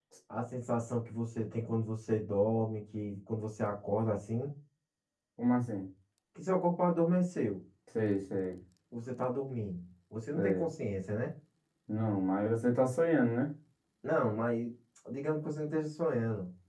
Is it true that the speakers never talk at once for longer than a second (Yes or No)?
Yes